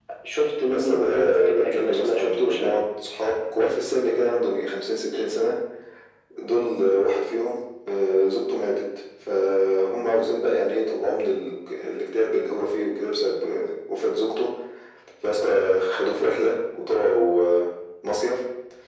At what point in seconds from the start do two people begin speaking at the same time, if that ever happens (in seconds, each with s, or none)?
0.7 s